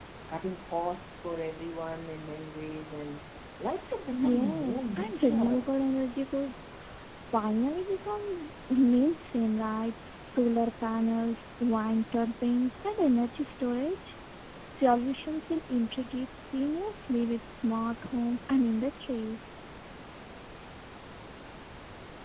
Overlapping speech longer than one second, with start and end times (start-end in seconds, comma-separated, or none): 4.1-5.6